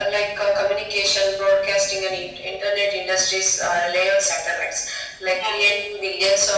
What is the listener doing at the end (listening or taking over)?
listening